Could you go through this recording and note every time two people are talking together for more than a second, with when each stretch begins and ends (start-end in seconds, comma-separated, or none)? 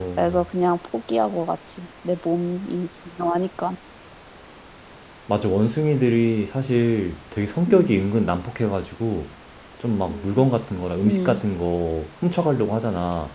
none